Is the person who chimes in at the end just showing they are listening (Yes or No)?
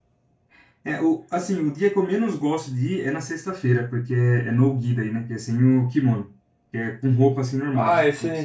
No